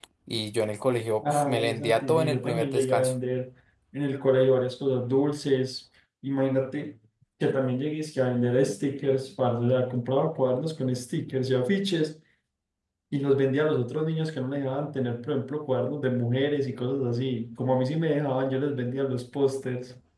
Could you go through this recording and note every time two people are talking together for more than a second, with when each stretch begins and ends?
1.2-3.1

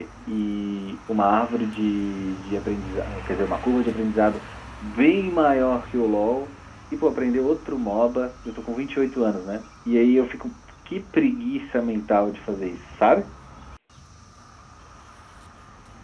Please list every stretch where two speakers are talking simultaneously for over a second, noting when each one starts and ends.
none

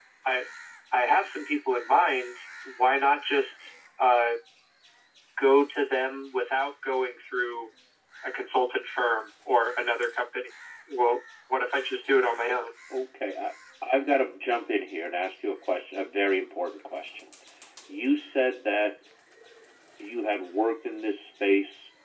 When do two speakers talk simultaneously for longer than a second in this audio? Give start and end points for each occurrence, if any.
none

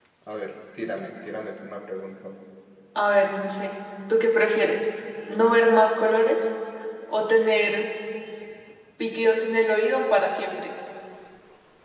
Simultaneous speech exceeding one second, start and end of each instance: none

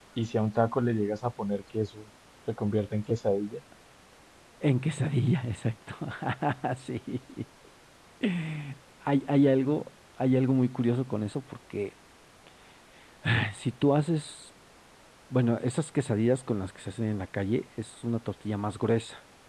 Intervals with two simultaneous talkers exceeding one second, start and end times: none

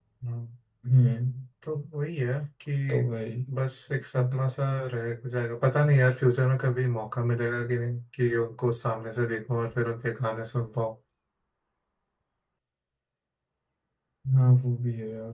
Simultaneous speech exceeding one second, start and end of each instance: none

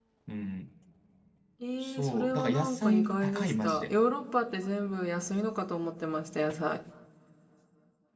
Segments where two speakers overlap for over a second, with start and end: 1.8-3.9

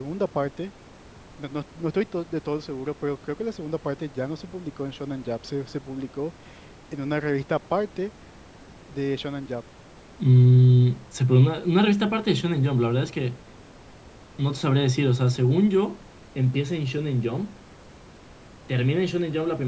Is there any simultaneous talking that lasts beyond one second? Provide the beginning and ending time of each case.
none

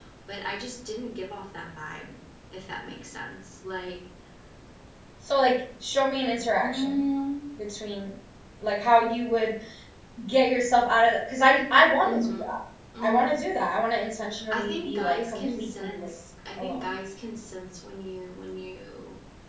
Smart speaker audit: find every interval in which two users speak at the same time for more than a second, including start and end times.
14.5-16.1

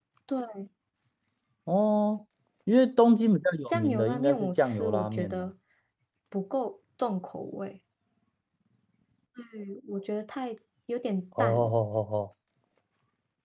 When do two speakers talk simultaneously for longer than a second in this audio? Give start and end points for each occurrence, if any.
3.7-5.5

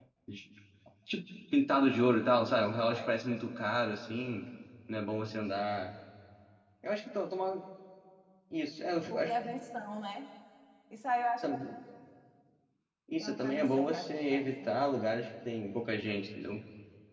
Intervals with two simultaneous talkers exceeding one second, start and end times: 13.2-14.7

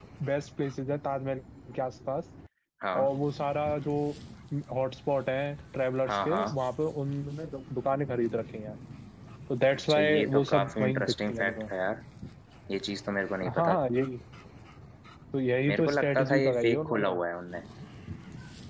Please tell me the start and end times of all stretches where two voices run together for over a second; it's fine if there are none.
9.9-11.6, 15.7-17.1

